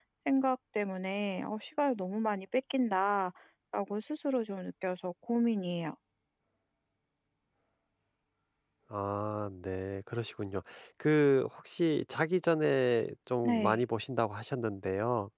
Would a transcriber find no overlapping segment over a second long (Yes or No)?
Yes